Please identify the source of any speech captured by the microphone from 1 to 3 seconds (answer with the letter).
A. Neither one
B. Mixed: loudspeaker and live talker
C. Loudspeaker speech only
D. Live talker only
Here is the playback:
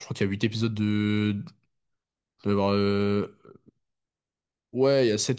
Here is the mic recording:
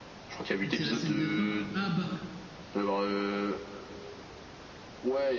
B